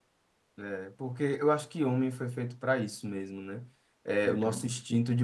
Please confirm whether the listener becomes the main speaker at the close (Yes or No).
No